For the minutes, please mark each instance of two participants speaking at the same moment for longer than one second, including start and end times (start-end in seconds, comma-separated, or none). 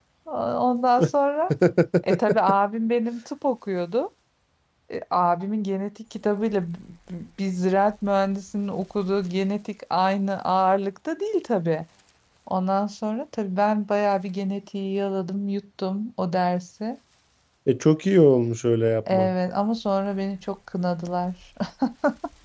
none